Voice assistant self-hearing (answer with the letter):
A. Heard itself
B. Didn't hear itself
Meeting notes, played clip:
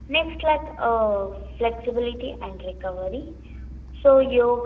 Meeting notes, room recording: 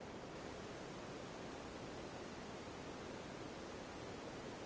B